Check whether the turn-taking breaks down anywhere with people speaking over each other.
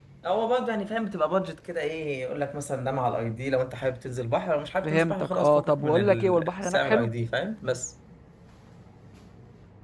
Yes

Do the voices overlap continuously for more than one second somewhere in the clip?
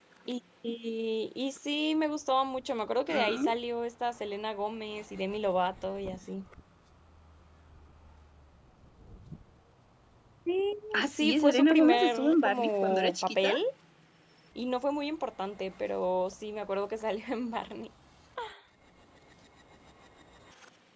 Yes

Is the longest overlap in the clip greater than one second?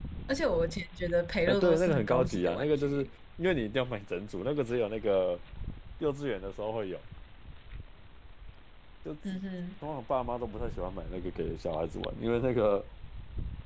Yes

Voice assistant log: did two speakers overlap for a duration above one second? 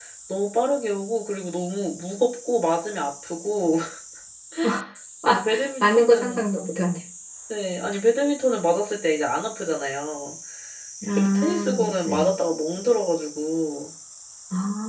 Yes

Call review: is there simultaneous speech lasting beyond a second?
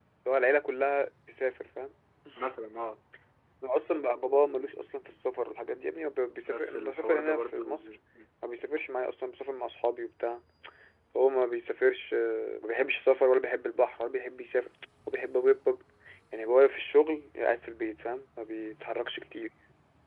Yes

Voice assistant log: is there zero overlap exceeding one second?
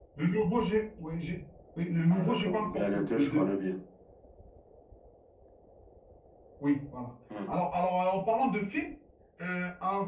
No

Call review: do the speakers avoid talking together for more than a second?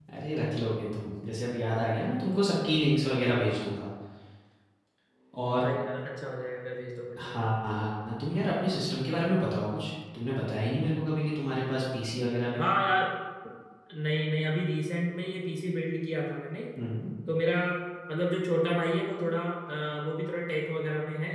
Yes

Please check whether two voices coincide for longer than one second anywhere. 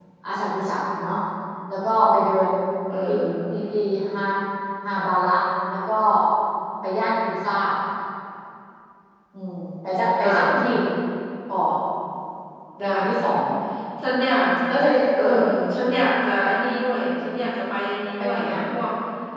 No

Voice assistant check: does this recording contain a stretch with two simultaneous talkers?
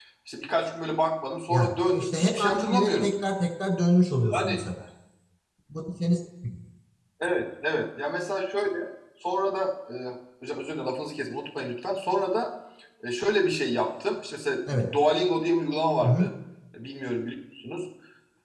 Yes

